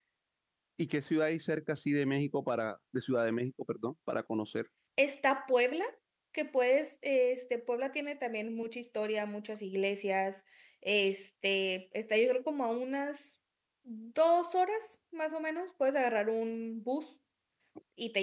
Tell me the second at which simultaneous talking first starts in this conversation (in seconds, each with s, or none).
none